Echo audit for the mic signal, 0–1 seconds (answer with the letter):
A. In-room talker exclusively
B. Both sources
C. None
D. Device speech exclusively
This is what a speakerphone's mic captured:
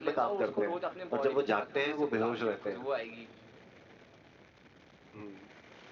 D